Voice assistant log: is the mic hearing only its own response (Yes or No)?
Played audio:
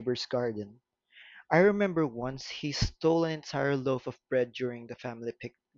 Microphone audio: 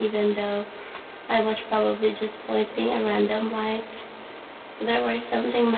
No